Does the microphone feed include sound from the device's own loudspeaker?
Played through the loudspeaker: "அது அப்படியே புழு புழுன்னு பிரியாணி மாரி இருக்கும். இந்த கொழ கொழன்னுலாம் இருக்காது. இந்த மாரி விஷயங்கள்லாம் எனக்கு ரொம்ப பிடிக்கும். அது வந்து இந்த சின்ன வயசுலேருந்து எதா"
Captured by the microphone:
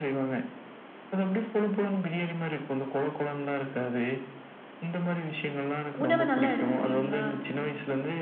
Yes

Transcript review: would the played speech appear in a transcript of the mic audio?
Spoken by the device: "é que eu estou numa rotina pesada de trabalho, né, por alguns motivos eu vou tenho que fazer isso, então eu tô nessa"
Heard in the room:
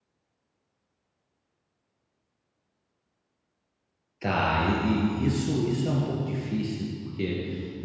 No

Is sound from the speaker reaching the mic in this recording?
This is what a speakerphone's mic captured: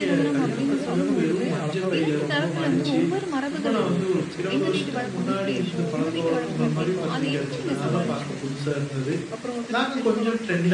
Yes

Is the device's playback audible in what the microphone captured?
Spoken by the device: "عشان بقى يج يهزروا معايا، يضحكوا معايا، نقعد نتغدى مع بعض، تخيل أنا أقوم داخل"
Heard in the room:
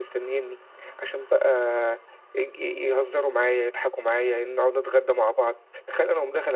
Yes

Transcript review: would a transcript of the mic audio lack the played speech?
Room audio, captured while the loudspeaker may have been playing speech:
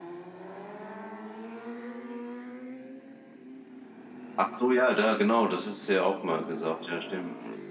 Yes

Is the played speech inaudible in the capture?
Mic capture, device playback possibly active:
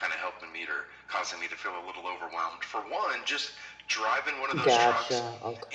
No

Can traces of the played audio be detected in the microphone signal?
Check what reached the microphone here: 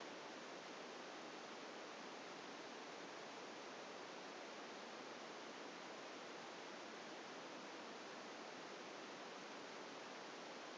No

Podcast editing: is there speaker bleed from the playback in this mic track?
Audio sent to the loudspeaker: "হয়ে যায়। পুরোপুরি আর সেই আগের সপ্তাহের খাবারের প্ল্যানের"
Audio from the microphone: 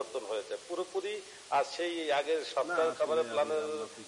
Yes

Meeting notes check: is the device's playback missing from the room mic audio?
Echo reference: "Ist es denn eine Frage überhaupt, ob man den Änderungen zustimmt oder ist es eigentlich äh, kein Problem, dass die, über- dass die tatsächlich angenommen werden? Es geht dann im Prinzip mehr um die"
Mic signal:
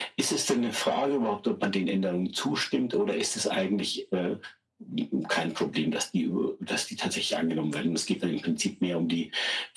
No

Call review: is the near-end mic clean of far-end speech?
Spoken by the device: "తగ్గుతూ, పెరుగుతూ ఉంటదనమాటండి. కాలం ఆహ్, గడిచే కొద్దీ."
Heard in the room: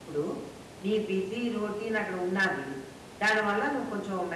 Yes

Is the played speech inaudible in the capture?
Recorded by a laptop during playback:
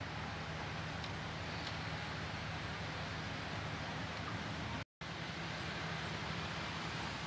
Yes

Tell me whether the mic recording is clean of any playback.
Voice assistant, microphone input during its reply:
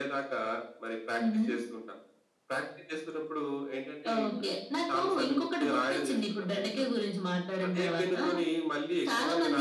No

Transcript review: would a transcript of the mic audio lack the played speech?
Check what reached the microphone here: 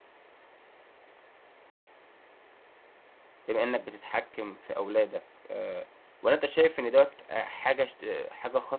Yes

